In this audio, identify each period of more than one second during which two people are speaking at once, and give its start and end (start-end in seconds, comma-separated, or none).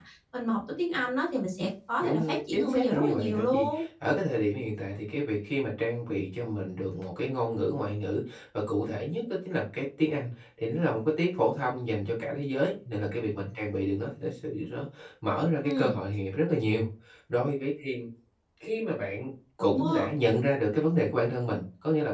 2.0-3.8